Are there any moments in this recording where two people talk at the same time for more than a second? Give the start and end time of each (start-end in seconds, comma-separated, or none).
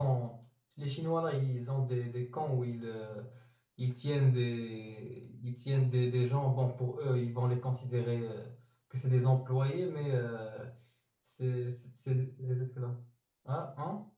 none